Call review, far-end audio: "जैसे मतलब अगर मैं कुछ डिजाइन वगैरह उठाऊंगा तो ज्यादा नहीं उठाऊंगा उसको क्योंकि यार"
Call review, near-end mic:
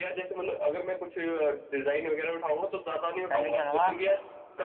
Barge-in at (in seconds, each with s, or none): 3.3 s